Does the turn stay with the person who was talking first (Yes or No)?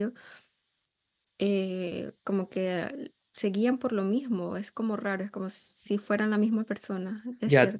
No